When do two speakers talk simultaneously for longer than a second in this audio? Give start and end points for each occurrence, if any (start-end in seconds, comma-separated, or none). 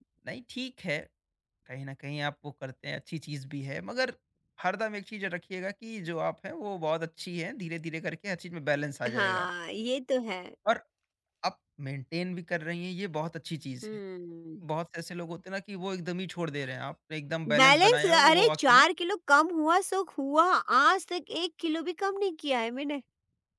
17.6-18.8